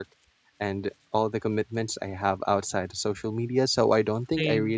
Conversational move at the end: listening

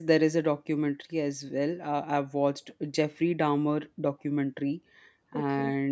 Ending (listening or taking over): listening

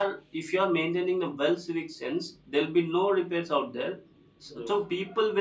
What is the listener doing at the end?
listening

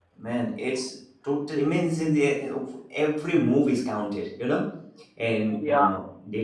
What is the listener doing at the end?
listening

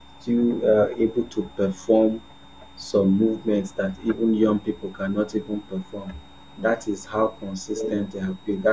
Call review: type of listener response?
listening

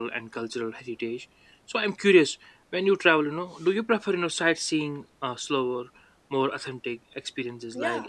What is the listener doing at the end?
taking over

